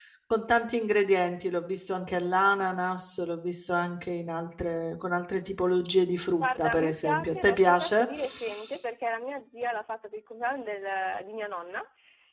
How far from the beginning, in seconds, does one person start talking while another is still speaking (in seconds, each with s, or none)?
6.4 s